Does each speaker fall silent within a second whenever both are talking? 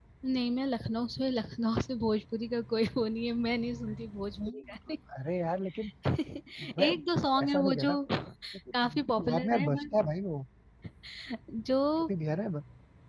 No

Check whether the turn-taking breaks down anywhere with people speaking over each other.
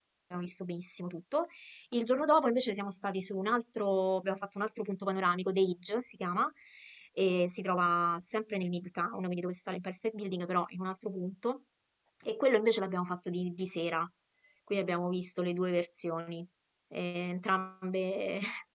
No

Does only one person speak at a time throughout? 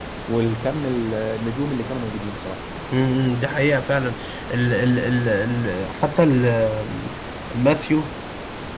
Yes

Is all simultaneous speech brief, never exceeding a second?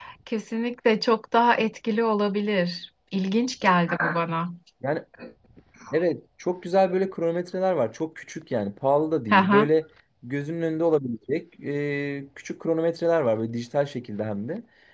Yes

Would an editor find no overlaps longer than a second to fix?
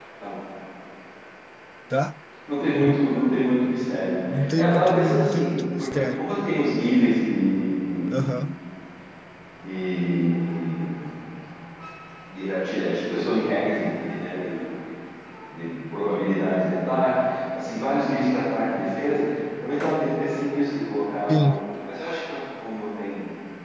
No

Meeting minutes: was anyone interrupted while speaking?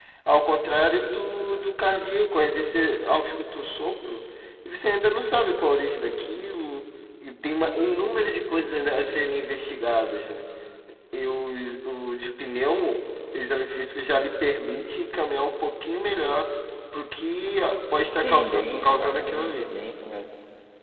Yes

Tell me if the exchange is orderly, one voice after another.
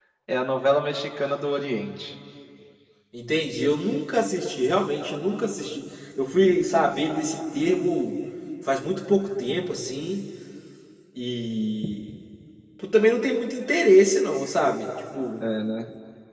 Yes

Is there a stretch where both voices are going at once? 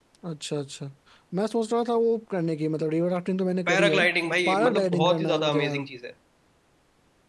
Yes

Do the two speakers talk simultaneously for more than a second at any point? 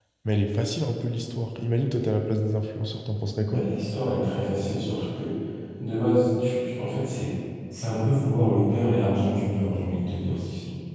No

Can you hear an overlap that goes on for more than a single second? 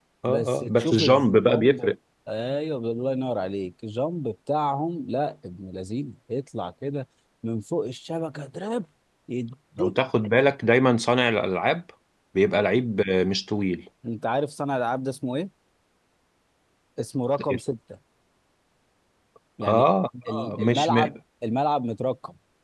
Yes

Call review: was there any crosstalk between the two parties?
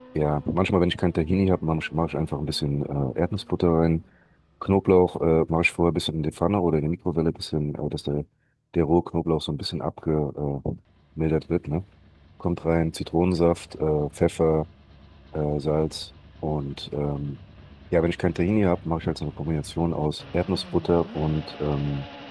No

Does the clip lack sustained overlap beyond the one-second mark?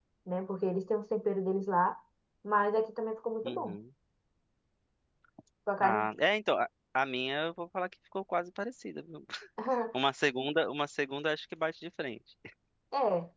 Yes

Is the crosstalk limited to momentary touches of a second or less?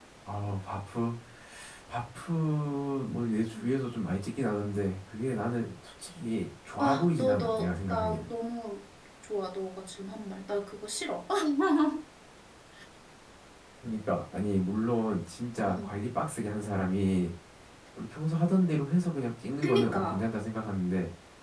No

